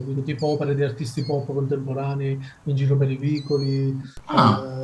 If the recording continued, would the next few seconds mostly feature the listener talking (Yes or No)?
No